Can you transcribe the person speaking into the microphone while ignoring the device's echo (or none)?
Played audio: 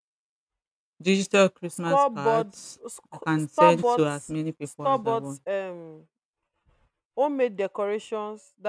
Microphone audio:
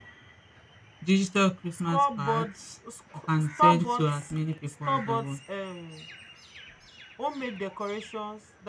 none